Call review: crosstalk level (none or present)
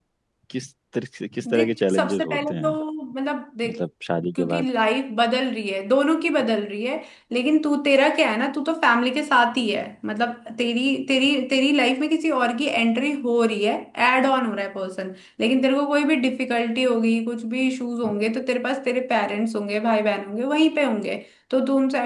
present